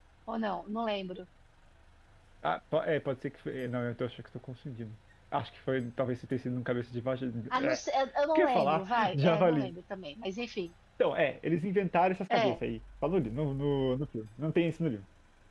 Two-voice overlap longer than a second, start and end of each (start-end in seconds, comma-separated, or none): 8.3-9.7